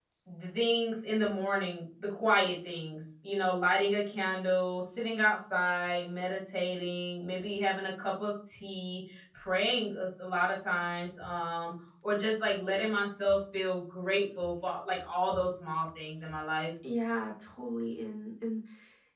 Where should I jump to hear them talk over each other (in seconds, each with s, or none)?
none